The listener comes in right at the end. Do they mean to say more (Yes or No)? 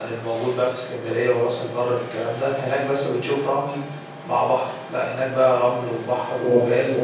Yes